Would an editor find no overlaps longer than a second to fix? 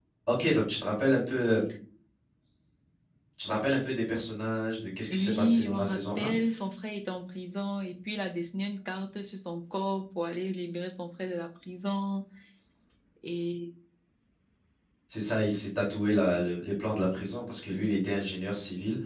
No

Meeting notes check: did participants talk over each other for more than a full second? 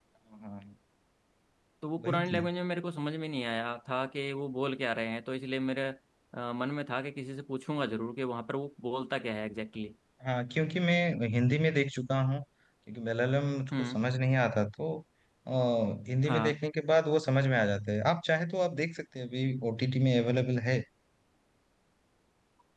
No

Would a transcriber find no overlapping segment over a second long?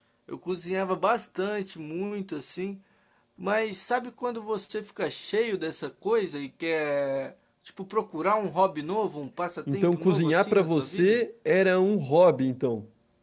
No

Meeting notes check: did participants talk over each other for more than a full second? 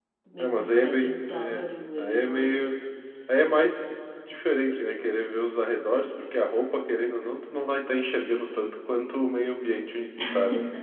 Yes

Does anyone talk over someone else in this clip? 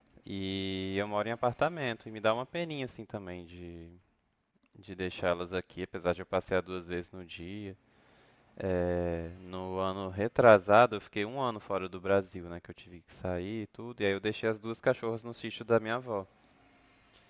No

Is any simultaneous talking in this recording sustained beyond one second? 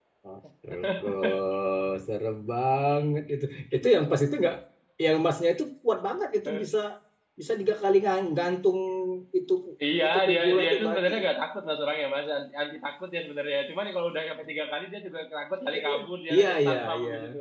Yes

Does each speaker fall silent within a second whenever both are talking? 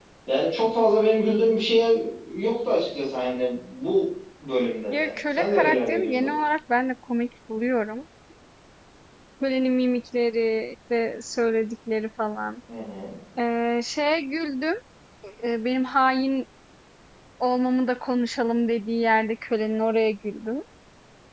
No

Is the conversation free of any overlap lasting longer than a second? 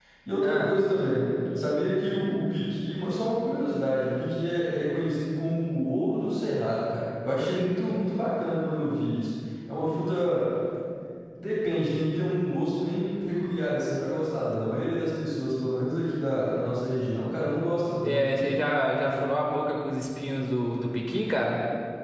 Yes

